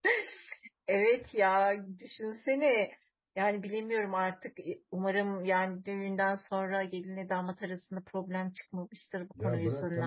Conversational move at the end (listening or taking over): taking over